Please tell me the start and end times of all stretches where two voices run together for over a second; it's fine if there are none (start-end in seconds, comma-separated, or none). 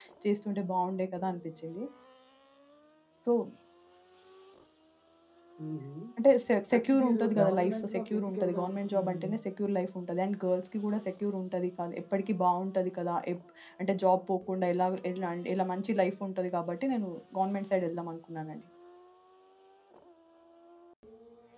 6.8-9.3